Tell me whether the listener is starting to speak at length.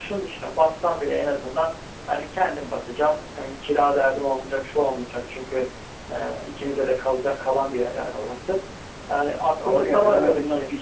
Yes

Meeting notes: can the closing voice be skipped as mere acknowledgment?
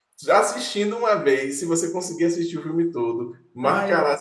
Yes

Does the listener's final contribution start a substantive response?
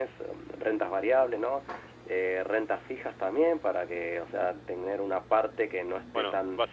Yes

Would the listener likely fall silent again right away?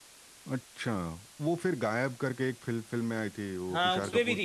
No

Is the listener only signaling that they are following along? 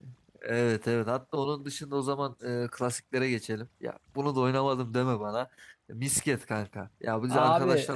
Yes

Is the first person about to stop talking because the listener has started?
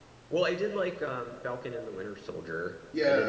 Yes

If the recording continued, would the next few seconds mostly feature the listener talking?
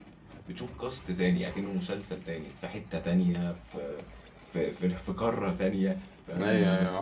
Yes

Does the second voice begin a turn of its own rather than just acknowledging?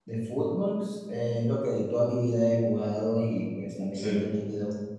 No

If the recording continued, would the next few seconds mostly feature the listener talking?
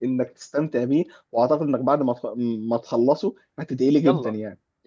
Yes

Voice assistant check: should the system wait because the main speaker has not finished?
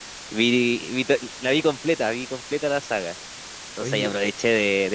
Yes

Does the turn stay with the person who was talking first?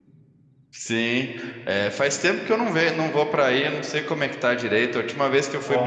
Yes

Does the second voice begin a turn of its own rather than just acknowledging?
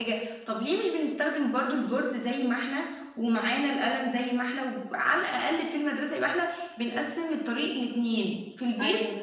No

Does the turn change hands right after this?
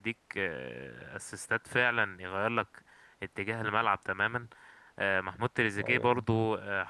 No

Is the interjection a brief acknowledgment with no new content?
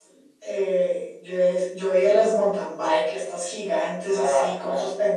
Yes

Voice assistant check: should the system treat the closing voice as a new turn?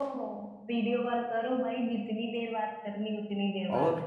Yes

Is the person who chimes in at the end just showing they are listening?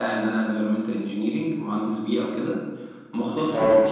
Yes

